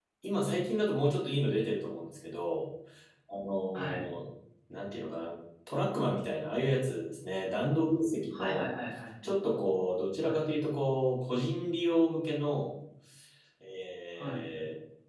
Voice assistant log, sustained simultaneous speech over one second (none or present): none